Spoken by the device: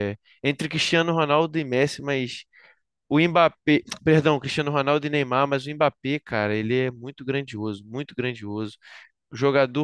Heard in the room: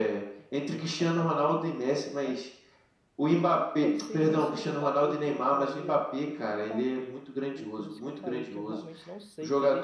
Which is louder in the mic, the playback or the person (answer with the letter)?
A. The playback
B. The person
A